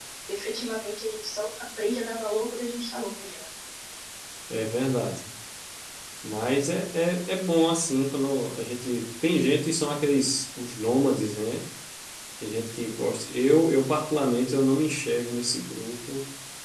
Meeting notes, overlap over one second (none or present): none